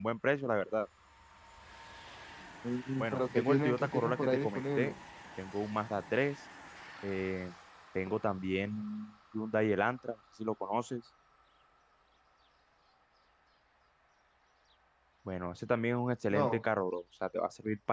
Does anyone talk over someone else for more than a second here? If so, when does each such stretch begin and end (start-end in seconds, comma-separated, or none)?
3.0-4.9